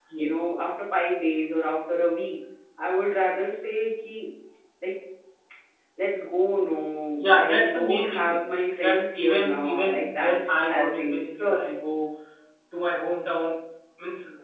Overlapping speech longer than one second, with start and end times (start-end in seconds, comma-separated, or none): 7.2-8.4, 8.8-11.7